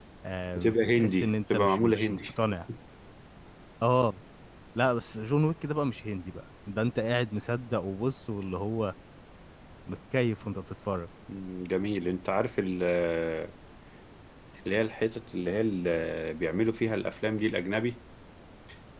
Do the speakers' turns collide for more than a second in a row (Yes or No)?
Yes